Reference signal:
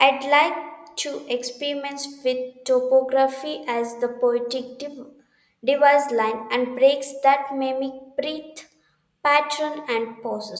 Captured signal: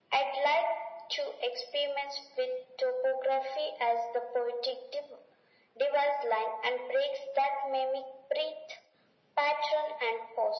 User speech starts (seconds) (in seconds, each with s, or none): none